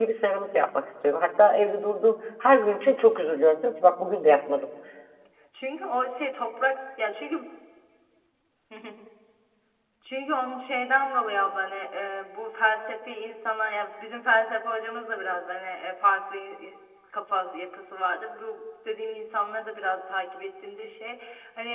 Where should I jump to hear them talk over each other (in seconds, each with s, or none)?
none